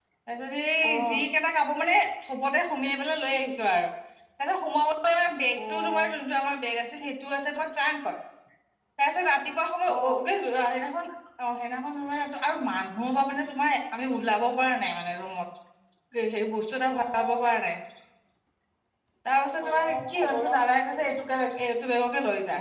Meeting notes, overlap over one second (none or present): present